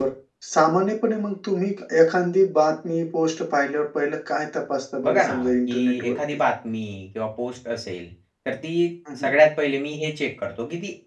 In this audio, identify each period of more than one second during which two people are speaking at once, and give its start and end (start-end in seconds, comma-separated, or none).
5.0-6.4